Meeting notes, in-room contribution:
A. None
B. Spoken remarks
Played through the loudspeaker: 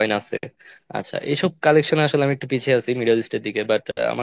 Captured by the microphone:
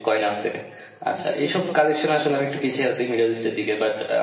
B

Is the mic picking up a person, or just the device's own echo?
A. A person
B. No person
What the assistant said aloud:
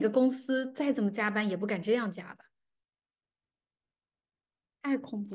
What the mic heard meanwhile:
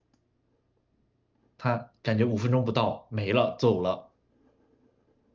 A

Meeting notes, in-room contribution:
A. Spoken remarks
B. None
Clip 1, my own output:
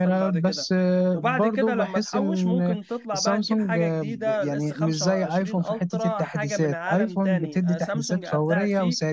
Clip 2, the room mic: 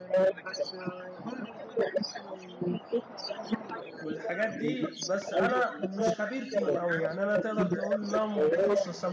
A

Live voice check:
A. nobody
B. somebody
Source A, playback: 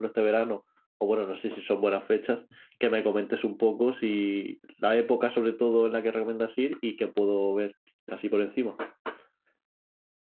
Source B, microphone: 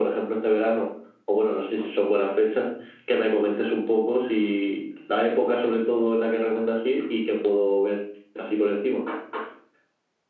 A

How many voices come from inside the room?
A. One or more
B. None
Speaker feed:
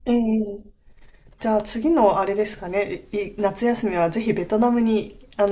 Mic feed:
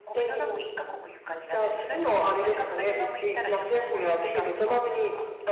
A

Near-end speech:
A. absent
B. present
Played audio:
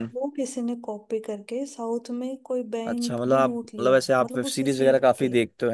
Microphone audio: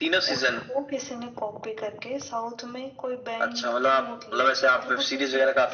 A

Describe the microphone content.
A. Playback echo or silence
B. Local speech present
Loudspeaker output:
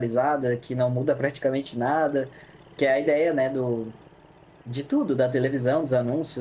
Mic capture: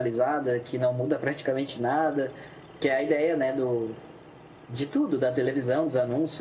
A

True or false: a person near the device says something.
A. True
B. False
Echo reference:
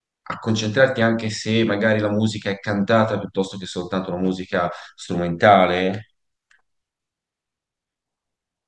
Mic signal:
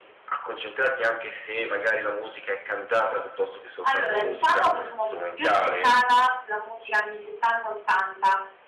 A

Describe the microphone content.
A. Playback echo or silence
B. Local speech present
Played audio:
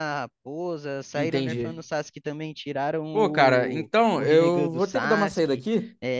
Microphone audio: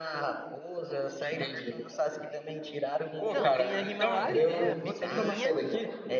B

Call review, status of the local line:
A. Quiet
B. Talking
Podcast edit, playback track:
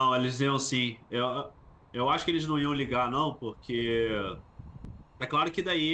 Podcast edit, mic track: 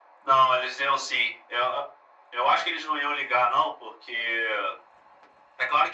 A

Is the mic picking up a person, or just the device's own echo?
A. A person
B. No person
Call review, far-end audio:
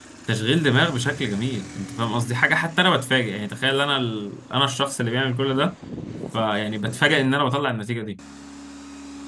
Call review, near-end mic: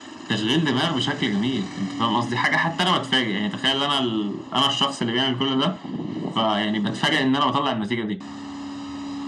B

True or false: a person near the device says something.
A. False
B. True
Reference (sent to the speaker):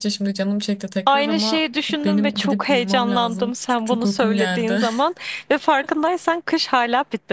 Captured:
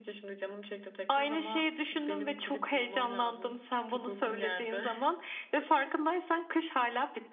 A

